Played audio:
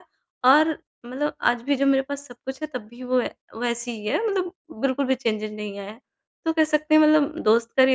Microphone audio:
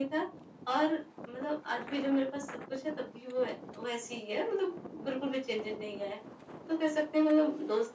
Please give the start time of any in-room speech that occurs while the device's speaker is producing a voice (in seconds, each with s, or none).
none